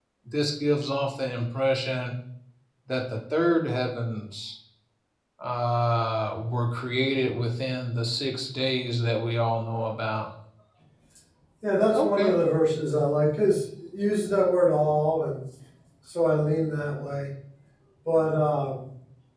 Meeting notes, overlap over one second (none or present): none